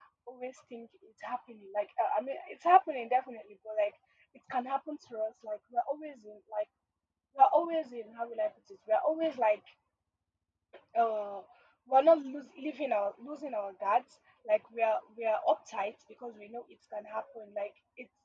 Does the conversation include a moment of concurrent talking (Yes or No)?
No